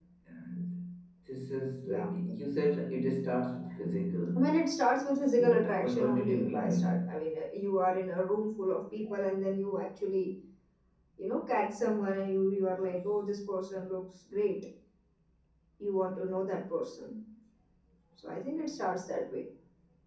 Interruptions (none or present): present